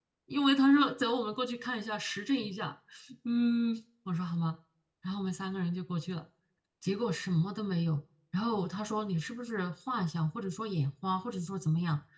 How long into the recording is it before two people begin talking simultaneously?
none

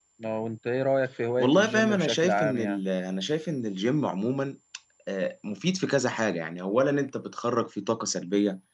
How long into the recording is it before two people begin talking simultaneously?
1.4 s

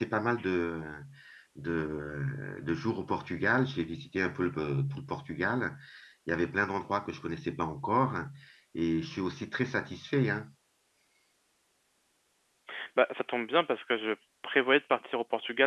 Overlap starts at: none

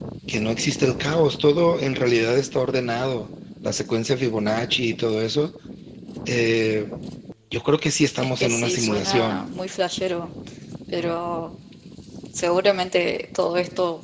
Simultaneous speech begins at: 8.2 s

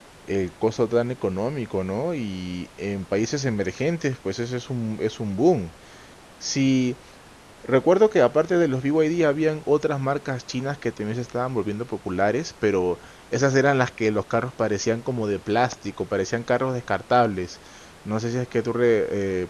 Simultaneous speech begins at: none

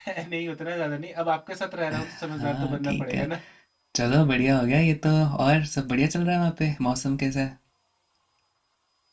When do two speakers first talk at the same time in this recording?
1.9 s

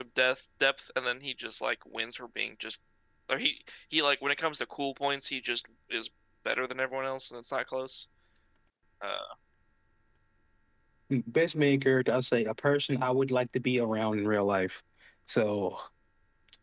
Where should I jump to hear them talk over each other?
none

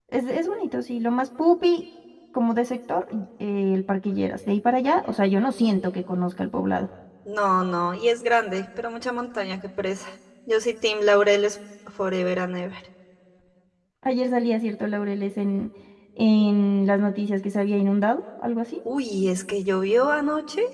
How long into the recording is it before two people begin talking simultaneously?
none

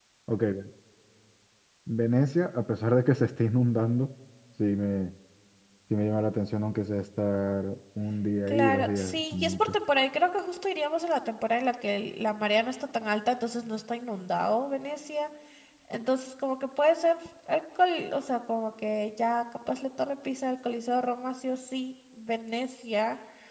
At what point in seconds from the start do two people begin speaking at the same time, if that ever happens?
8.5 s

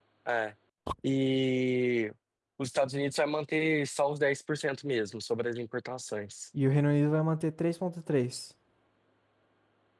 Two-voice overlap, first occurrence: none

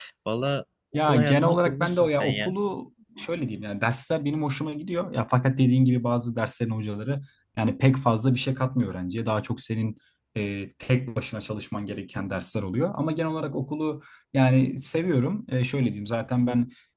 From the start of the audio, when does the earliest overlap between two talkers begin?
0.9 s

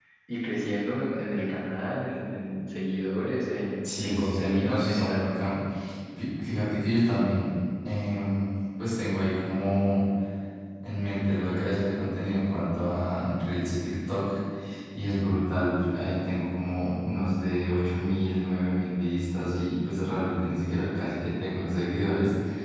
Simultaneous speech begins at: 3.8 s

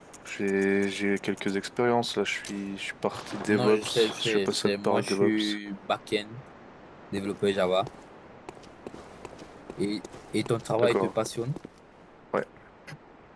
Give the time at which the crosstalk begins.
3.5 s

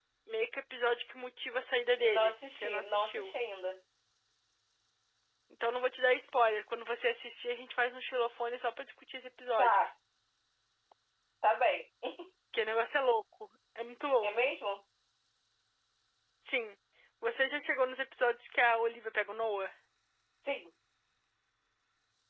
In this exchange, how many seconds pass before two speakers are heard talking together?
2.0 s

